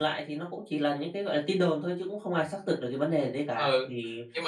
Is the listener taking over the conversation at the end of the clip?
Yes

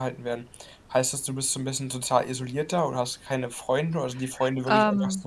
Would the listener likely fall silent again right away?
Yes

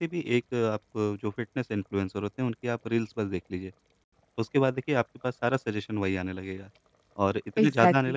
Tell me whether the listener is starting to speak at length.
No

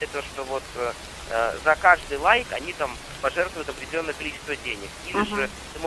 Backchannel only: Yes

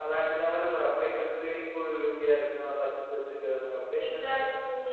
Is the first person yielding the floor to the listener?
Yes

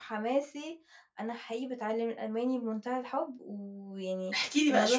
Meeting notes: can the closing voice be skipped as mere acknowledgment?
No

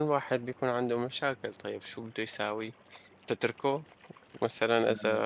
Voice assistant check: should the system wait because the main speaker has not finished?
Yes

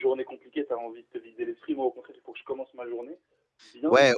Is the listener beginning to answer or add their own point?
Yes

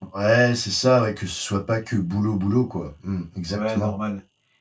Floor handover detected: Yes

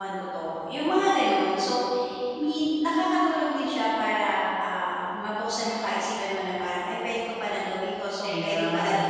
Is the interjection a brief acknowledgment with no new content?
Yes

